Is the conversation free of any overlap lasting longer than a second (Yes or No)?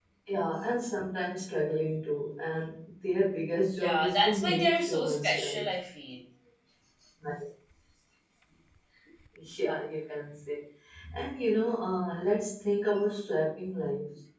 No